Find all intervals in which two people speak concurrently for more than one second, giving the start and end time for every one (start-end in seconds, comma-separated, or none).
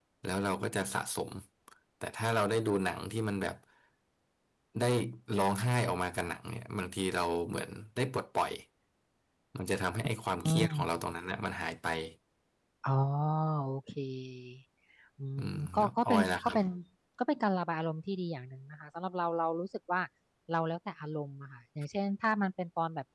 15.4-16.6